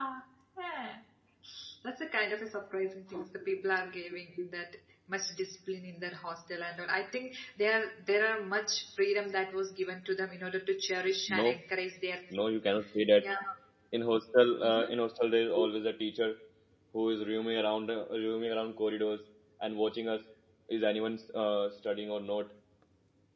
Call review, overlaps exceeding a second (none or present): none